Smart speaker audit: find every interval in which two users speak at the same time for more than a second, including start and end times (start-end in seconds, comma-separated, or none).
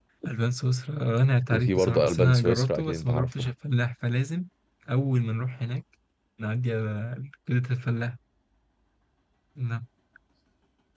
1.5-3.5